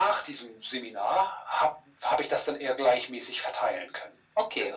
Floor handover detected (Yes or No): Yes